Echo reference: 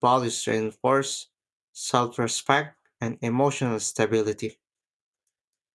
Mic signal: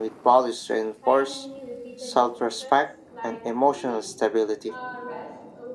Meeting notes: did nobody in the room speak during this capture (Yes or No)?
No